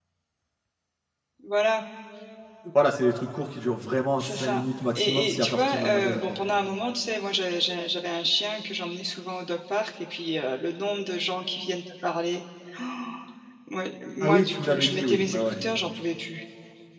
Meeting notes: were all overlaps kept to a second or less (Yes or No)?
No